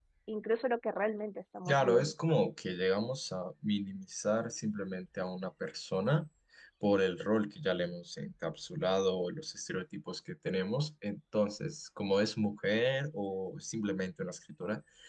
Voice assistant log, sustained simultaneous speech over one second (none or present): none